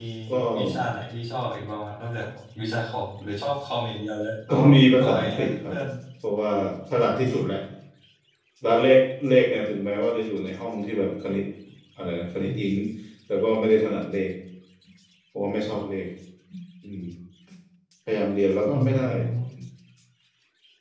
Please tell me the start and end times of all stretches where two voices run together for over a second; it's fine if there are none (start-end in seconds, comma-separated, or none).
4.5-5.7